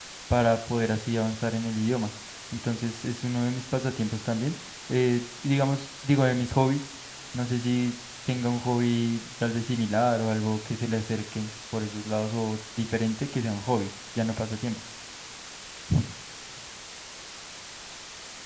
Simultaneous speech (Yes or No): No